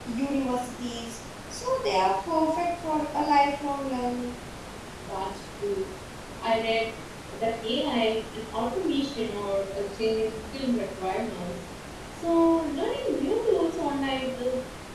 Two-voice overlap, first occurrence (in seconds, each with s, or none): none